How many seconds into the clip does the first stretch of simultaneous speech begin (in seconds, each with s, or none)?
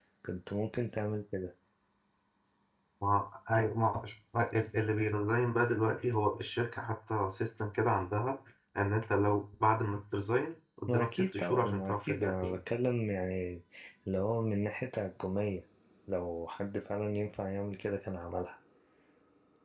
10.9 s